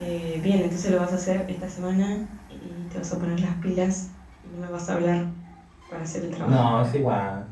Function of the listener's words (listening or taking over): taking over